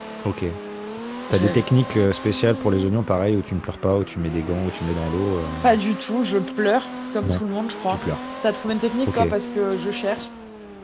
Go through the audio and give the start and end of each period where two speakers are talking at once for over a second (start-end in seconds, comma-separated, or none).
none